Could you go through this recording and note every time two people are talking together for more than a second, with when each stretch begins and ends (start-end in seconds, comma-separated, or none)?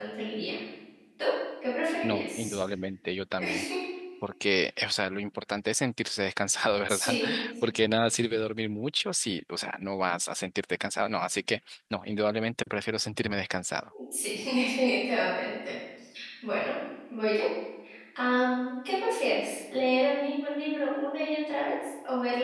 none